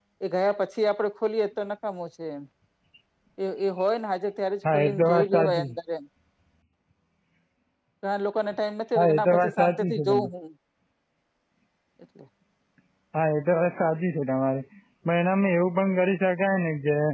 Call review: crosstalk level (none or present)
present